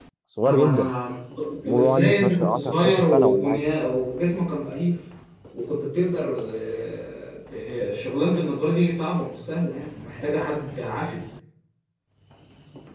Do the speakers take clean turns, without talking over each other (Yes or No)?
No